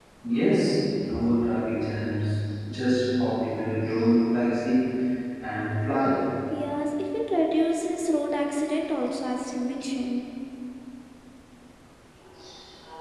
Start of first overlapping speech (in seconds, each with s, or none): none